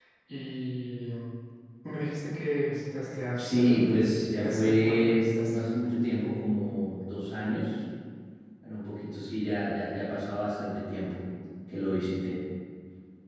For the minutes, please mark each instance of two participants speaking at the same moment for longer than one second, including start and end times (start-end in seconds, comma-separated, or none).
4.4-5.6